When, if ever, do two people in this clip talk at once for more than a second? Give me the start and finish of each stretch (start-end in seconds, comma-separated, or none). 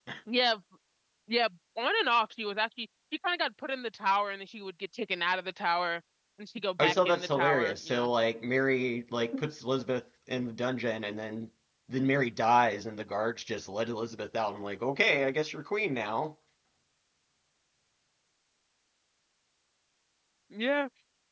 6.8-8.1